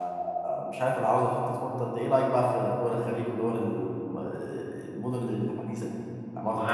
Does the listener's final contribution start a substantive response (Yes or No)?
Yes